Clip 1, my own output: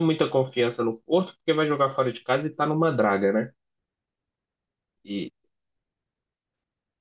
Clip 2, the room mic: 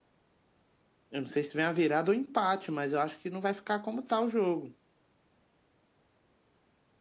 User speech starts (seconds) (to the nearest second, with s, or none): 1 s